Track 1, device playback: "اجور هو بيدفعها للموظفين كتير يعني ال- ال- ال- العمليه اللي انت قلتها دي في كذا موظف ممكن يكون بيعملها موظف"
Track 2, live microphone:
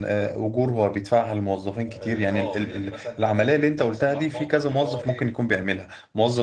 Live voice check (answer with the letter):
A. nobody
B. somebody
B